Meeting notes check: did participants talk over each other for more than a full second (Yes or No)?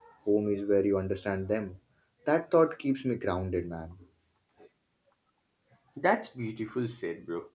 No